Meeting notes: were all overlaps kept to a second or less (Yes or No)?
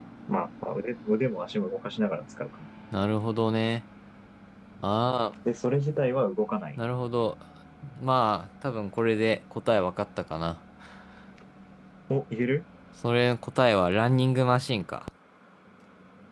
Yes